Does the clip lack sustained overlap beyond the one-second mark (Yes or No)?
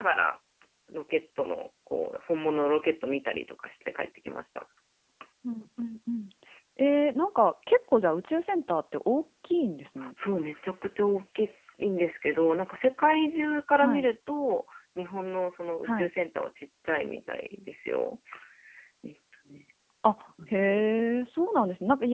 Yes